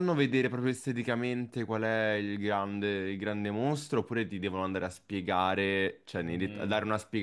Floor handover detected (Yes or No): No